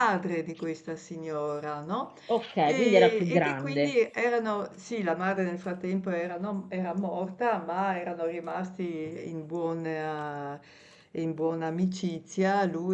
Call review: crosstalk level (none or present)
present